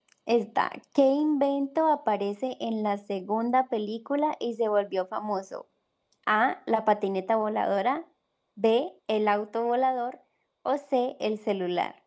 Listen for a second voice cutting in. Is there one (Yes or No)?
No